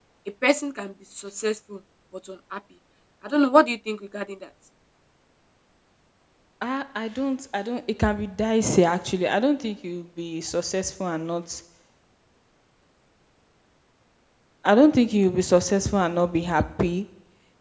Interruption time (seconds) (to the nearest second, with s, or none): none